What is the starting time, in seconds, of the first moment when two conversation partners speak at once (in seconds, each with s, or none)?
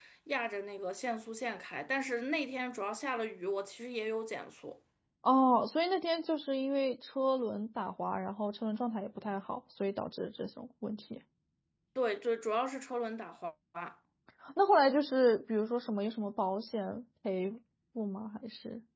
none